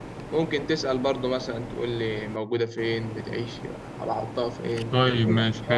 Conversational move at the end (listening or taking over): taking over